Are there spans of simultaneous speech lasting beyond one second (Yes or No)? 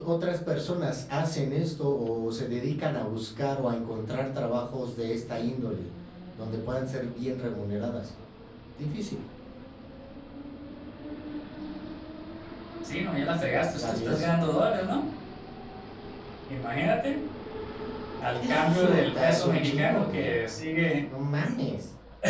Yes